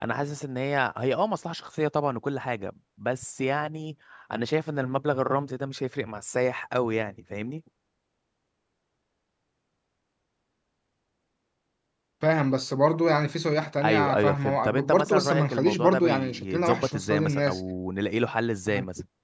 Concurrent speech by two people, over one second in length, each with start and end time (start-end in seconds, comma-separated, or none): 13.8-17.6